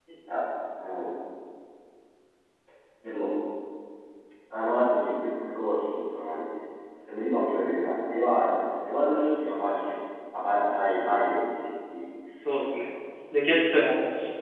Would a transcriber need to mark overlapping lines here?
No

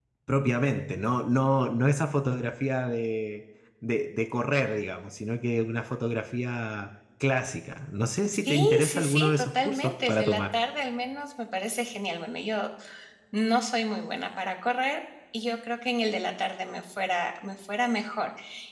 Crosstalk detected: Yes, from 8.2 s

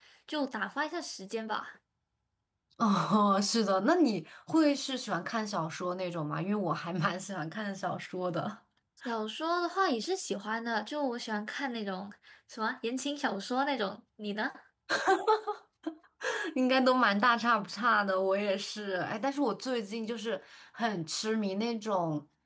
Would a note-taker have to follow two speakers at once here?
No

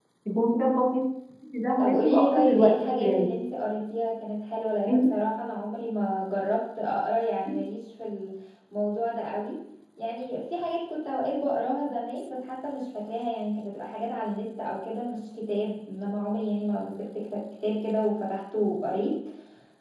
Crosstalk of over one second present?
Yes, from 1.8 s

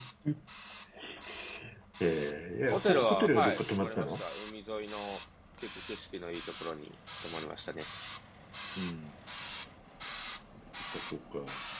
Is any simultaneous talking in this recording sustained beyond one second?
Yes, from 2.7 s

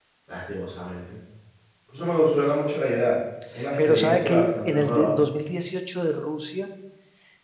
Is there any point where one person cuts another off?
Yes, from 3.6 s

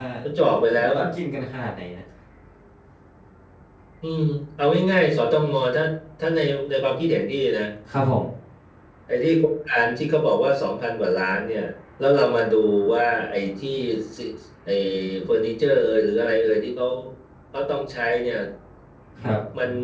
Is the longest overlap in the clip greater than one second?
No

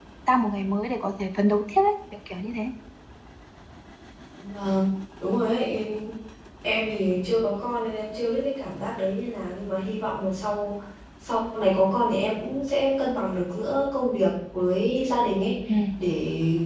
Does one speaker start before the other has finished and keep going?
No

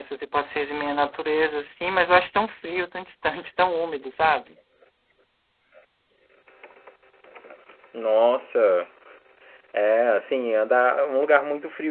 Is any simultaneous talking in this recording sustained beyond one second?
No

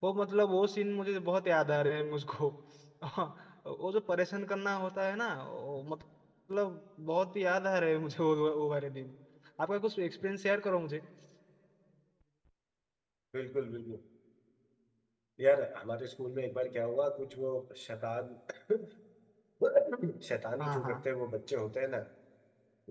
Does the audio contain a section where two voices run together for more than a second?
No

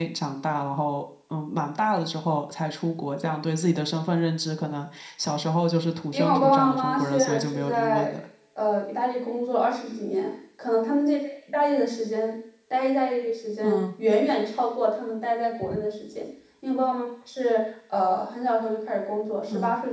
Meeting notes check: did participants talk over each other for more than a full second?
Yes, from 6.1 s

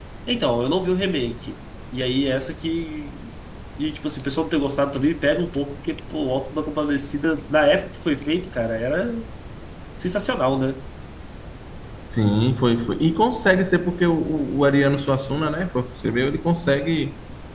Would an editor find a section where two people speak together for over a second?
No

